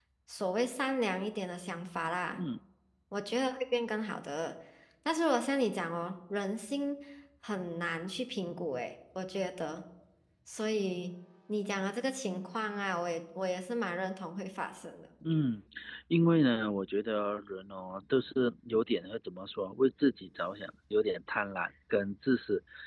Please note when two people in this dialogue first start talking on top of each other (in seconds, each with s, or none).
none